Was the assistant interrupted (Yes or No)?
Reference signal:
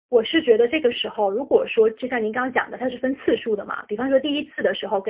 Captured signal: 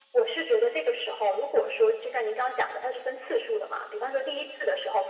No